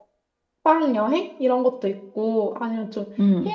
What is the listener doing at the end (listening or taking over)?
listening